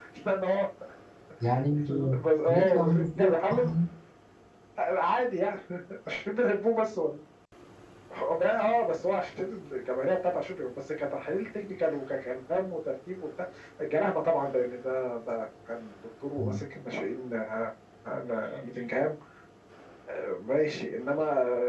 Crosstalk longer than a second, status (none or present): present